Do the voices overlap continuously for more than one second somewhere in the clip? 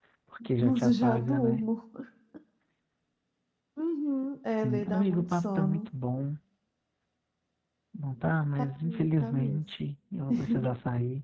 Yes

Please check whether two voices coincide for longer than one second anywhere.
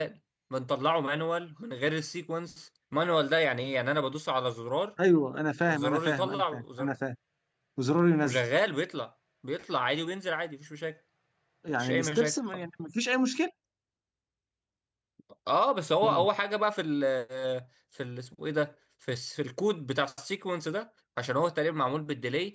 Yes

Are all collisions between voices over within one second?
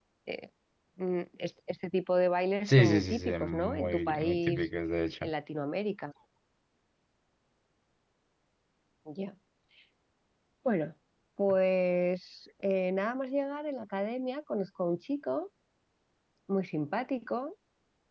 No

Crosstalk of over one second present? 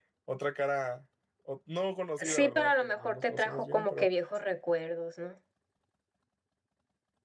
Yes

